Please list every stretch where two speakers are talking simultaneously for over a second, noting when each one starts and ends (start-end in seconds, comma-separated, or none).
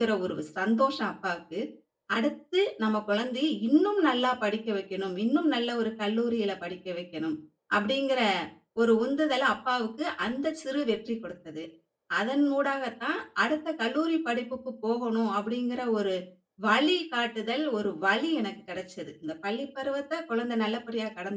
none